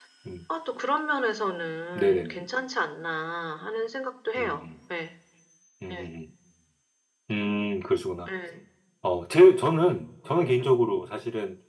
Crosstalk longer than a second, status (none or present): none